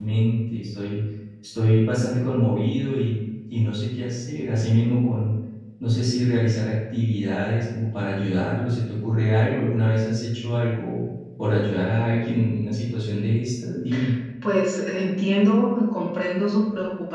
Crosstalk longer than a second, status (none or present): none